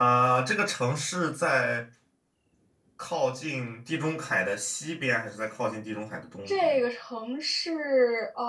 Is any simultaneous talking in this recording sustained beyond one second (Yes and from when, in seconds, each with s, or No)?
No